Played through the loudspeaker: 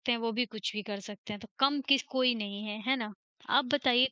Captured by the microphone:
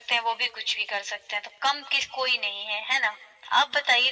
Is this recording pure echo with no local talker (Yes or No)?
Yes